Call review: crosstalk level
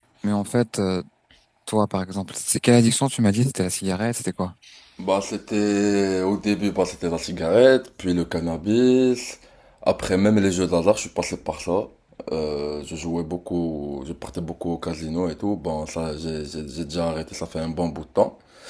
none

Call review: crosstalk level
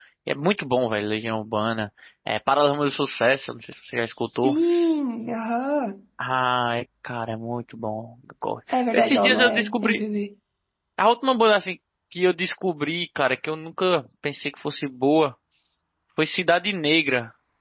present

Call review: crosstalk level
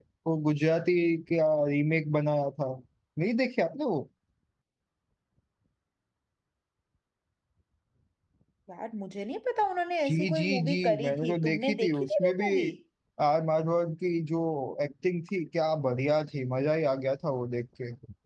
present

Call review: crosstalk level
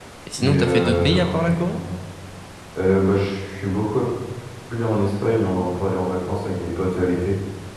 present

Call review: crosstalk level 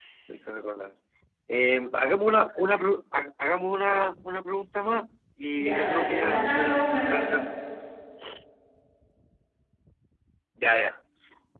present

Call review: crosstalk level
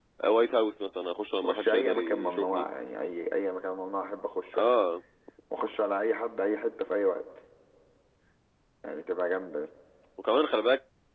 present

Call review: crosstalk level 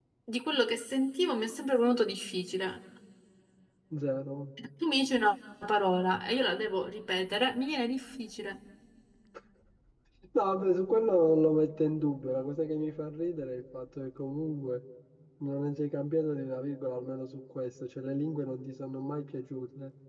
none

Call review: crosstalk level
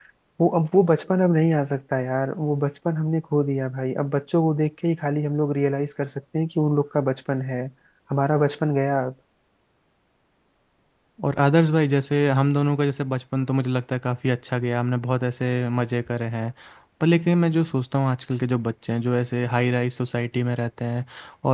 none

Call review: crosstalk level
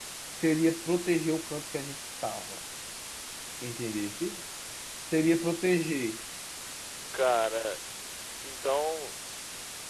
none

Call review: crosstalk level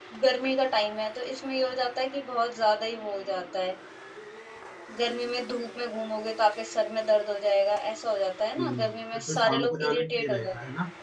present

